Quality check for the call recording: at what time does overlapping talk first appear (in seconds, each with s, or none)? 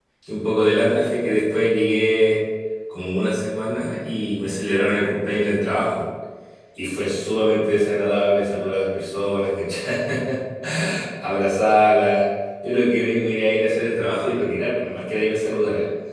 none